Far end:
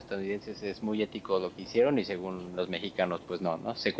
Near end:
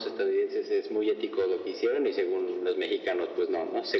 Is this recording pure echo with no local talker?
Yes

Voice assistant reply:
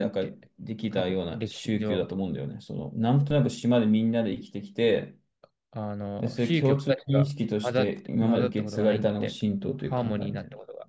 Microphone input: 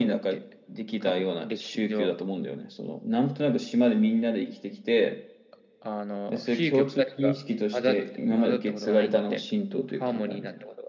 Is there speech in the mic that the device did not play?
No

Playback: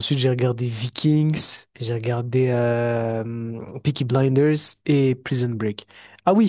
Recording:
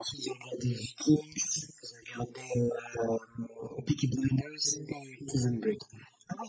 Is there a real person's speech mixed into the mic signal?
No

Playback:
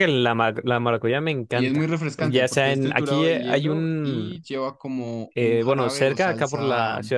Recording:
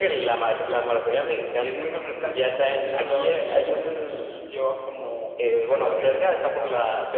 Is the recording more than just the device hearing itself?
No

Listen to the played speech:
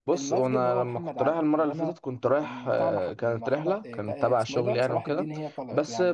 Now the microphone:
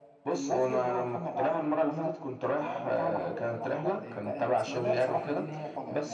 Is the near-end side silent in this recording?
No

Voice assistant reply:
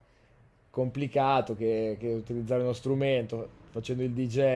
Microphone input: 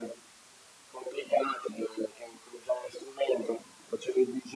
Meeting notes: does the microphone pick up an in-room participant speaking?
No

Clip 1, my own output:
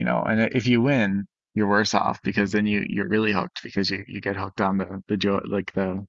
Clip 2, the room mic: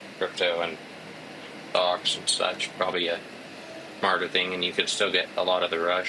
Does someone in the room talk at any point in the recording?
Yes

